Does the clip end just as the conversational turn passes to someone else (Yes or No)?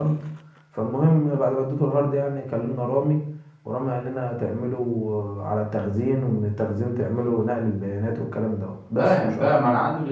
Yes